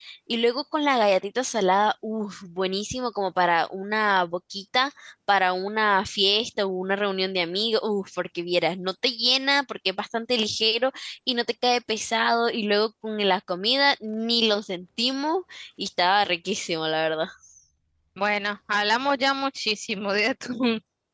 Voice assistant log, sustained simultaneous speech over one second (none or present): none